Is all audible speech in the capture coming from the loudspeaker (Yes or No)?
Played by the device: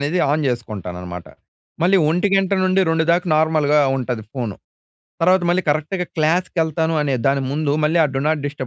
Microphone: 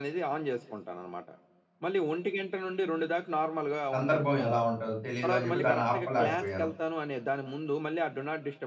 No